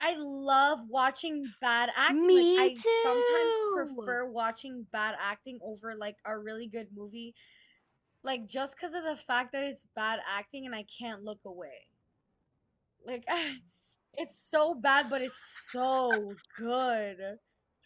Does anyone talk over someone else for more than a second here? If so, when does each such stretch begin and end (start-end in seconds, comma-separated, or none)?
2.2-4.2